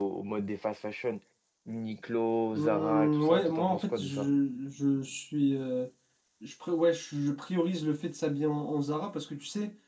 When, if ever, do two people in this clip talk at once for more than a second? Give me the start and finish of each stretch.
2.5-4.3

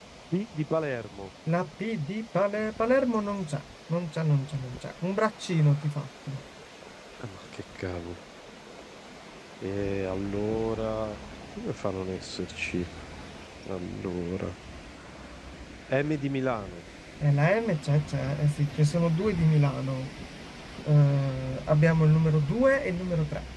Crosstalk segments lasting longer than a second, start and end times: none

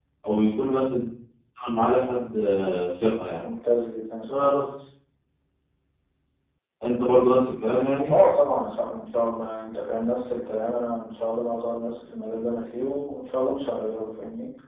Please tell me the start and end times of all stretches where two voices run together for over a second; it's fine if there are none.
none

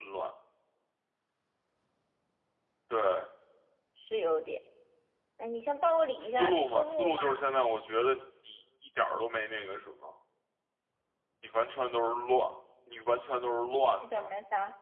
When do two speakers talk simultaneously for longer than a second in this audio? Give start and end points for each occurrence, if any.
6.2-7.5

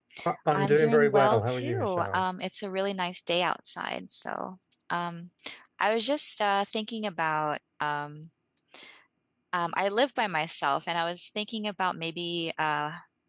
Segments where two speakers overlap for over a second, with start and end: 0.5-2.2

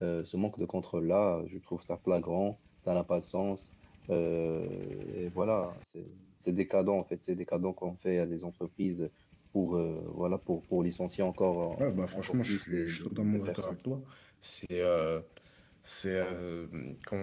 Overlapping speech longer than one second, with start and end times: 11.8-13.8

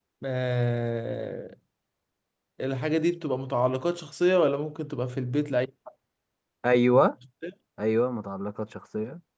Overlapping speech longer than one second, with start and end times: none

